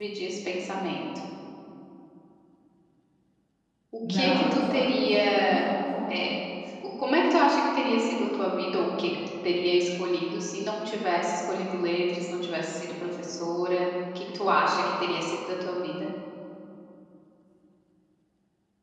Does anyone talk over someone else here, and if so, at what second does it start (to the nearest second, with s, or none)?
4 s